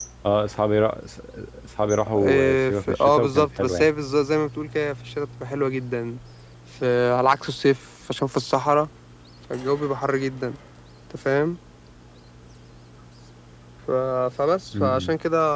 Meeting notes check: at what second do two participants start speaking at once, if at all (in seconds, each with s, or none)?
2.2 s